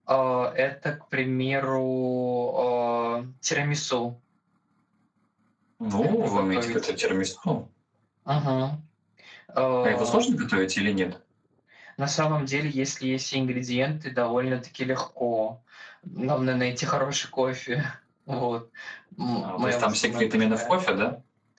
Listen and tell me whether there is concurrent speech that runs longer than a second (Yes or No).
Yes